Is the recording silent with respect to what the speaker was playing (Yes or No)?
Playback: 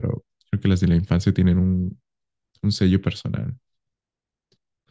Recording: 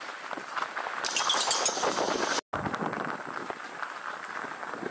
Yes